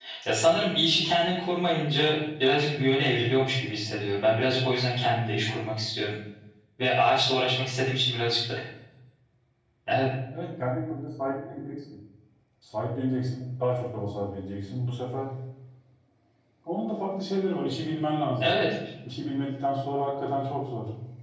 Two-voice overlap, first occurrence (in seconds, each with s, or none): none